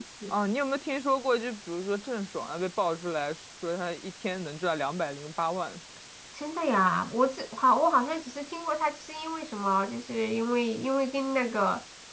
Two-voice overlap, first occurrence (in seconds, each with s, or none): none